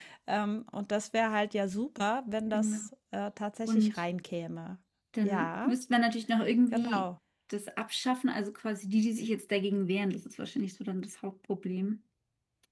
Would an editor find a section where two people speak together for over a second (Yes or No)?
No